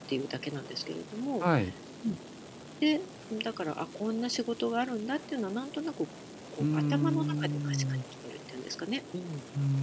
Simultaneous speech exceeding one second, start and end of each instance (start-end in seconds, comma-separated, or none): 6.6-7.8